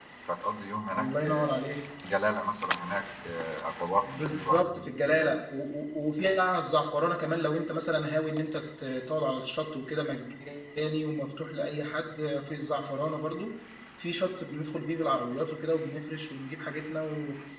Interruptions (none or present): present